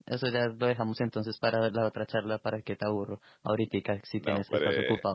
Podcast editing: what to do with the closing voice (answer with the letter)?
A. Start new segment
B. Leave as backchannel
A